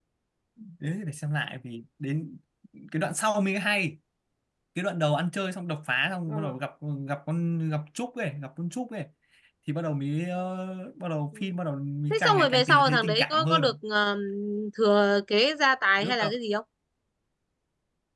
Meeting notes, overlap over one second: present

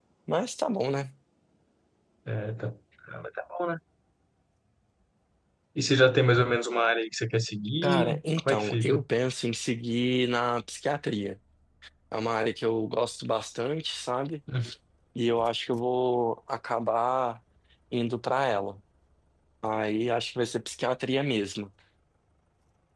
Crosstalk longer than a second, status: present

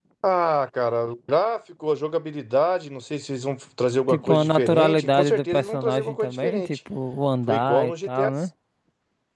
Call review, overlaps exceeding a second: present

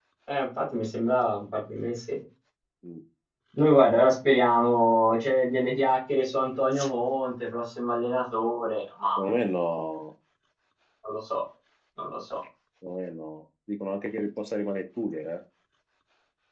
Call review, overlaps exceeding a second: none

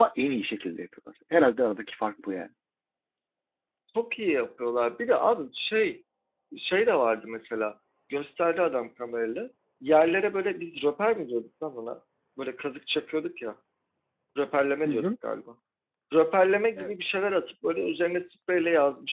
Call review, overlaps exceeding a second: none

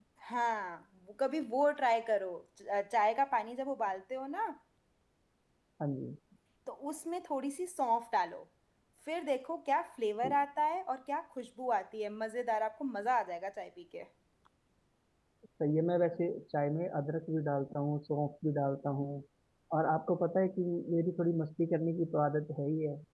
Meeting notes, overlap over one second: none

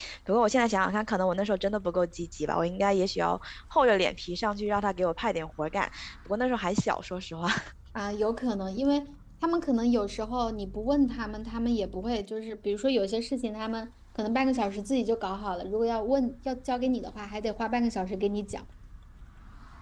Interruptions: none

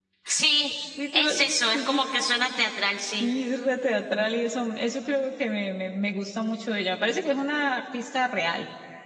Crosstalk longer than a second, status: none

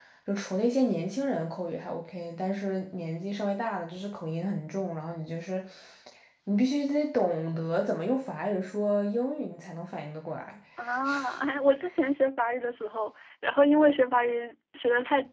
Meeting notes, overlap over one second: none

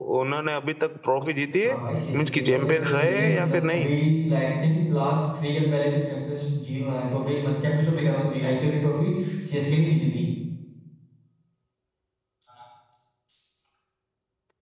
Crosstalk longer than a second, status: present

